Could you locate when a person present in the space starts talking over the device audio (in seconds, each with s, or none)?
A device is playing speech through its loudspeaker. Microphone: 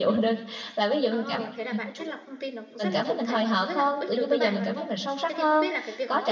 1.1 s